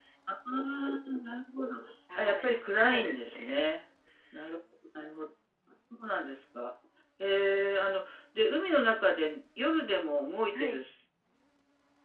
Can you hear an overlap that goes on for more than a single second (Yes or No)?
Yes